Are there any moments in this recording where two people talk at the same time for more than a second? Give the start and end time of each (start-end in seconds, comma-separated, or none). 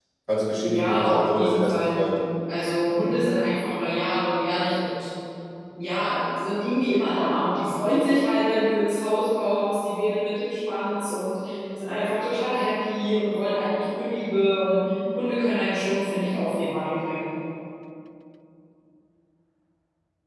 0.7-2.0